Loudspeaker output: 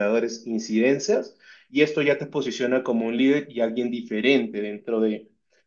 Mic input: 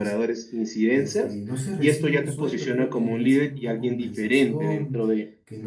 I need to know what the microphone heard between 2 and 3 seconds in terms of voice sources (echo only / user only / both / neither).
both